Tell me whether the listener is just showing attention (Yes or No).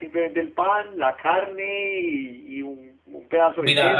No